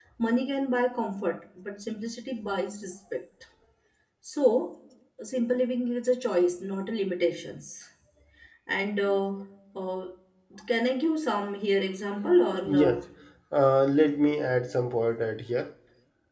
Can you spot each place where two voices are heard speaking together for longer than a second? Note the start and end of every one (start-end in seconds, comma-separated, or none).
none